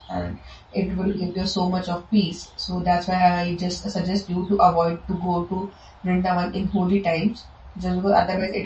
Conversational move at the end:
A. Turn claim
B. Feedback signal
B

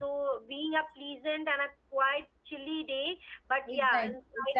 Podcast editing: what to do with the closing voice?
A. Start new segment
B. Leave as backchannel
A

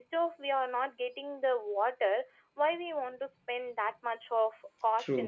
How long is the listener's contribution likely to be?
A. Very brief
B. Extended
B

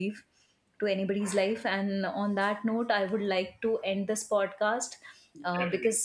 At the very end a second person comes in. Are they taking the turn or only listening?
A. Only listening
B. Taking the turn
A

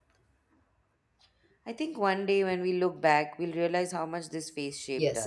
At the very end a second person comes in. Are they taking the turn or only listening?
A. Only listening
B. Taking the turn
B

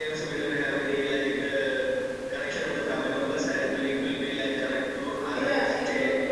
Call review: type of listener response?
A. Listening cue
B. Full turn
B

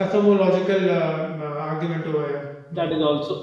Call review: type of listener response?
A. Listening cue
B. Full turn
B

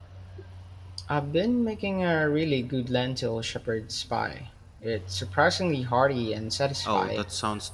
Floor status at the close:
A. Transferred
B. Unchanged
A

